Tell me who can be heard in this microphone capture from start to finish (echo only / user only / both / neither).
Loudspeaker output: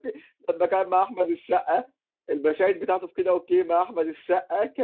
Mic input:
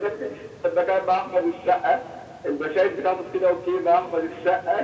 echo only